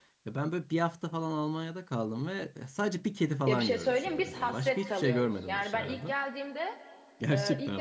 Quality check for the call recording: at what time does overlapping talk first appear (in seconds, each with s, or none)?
3.5 s